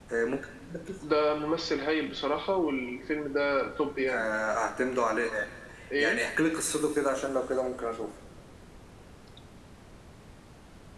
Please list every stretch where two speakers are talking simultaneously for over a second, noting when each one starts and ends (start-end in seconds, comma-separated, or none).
none